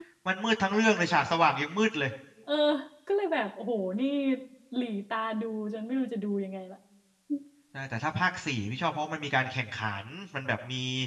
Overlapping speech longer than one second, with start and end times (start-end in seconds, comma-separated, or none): none